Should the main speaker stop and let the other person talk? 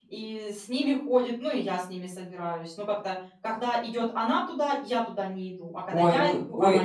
Yes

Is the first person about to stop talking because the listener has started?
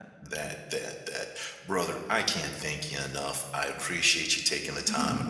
No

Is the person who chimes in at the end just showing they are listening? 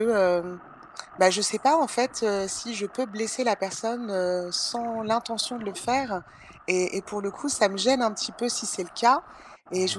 Yes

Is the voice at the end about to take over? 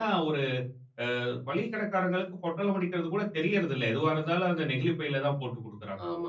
Yes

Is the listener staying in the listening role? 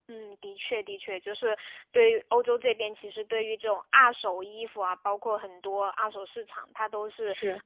Yes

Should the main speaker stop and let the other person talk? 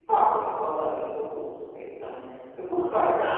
No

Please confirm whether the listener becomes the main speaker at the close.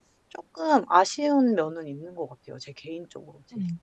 Yes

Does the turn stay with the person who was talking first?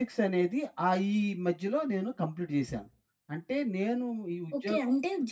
No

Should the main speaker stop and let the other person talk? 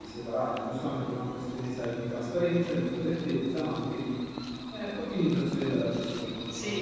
Yes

